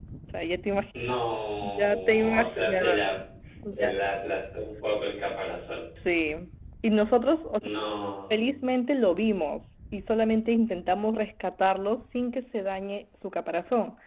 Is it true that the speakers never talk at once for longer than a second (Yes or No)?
No